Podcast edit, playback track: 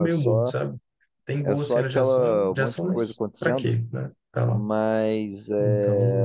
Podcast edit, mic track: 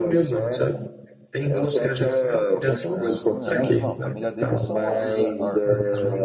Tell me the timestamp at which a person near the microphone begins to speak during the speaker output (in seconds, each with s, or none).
2.9 s